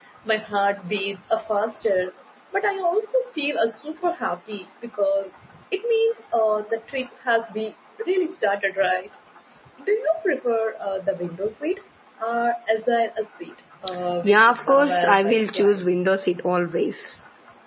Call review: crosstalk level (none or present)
present